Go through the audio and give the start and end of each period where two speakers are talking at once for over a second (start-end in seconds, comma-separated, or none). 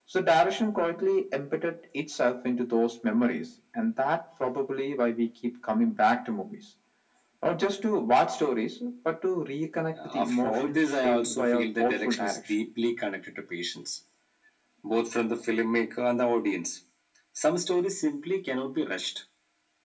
10.1-12.4